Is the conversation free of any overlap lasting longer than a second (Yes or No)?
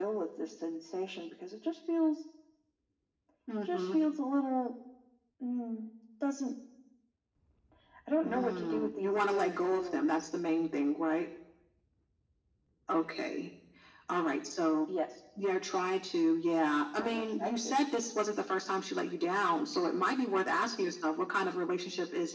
No